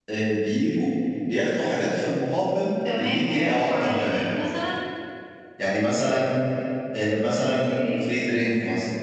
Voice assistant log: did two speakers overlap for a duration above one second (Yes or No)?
Yes